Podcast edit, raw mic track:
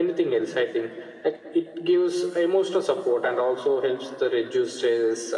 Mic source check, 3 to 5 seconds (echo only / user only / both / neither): echo only